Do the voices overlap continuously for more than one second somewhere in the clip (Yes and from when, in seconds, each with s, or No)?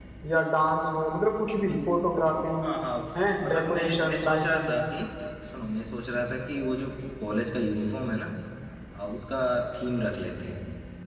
Yes, from 3.4 s